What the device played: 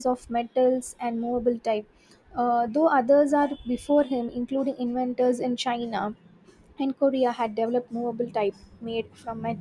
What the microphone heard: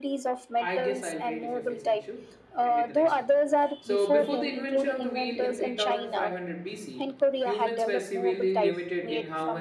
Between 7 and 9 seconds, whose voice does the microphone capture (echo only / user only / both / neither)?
both